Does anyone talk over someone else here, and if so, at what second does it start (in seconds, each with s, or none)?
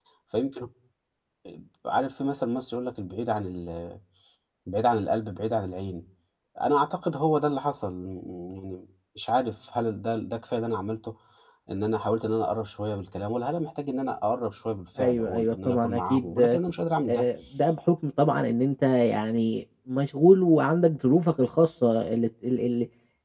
15.0 s